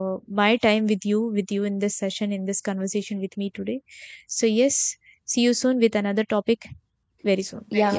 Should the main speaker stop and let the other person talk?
Yes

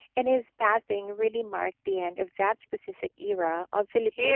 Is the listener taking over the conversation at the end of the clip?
Yes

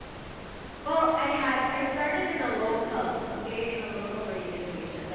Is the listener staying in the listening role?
Yes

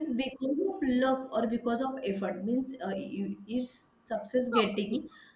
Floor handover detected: No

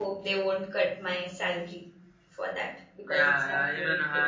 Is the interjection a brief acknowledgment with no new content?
No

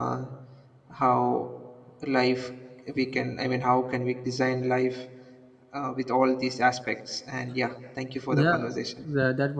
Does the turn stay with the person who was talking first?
No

